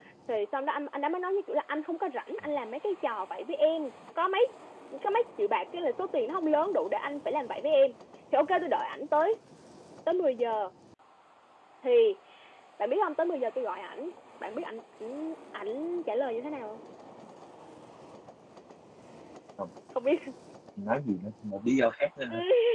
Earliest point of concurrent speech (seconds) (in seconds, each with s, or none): none